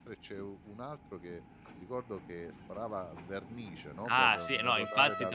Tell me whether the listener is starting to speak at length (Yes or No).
Yes